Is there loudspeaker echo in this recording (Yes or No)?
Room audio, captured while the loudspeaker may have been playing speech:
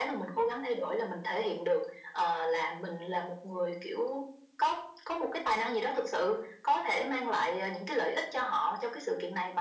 Yes